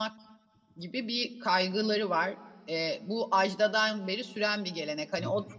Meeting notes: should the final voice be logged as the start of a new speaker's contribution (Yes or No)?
No